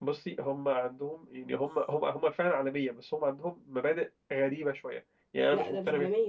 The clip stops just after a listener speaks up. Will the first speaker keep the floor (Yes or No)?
No